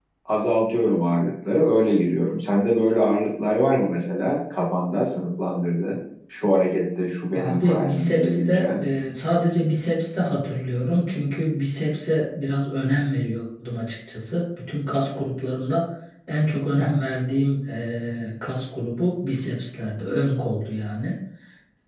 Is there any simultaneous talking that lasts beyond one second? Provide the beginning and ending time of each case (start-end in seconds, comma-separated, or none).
7.3-8.9